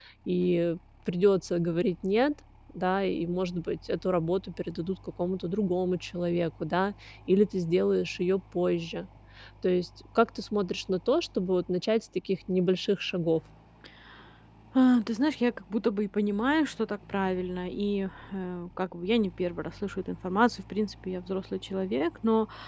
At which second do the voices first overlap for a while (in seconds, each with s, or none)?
none